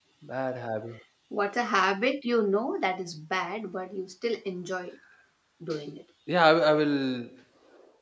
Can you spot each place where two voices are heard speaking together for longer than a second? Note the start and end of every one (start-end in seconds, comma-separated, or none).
none